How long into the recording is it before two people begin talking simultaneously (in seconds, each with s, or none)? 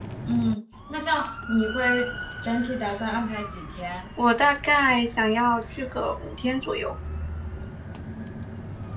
none